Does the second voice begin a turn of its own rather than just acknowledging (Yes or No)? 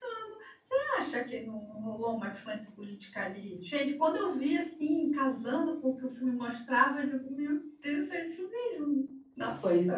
Yes